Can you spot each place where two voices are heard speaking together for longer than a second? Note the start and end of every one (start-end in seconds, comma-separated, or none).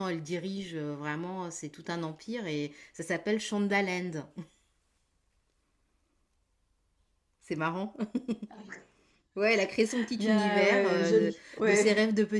10.2-11.8